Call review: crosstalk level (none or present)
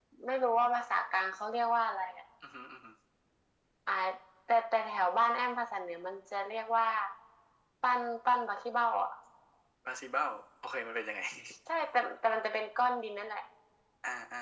none